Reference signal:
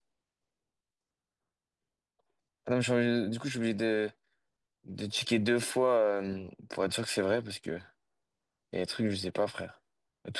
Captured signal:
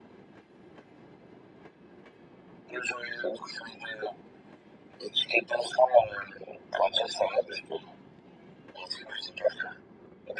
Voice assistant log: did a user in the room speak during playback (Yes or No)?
No